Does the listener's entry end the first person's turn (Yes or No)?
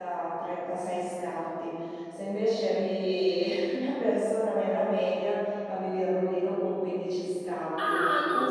Yes